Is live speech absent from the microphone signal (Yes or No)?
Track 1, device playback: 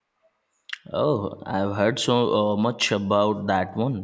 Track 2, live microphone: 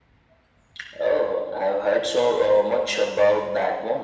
Yes